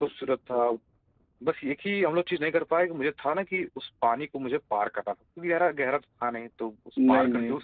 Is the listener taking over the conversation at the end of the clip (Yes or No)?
No